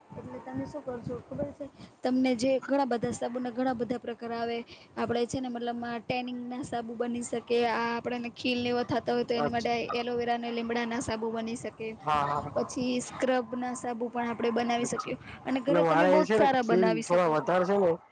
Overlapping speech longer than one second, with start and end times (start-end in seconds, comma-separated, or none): 15.8-17.5